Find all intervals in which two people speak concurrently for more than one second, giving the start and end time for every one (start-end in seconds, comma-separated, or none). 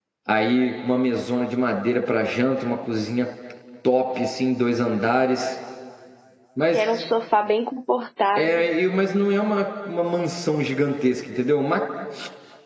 none